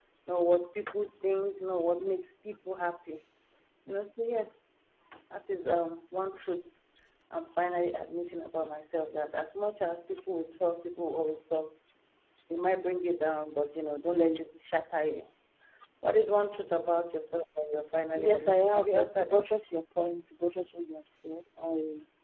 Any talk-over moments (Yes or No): Yes